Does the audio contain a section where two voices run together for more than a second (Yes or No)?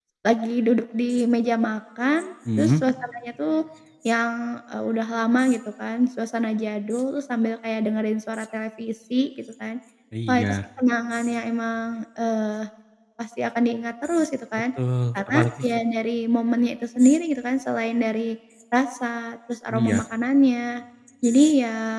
No